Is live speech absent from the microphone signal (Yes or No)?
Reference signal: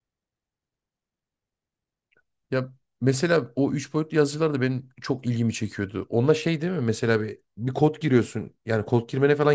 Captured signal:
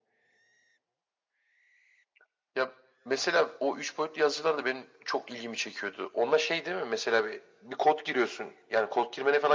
Yes